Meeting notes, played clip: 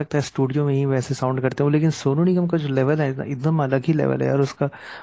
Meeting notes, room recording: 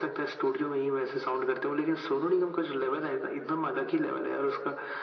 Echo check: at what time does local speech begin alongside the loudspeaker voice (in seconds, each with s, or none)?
none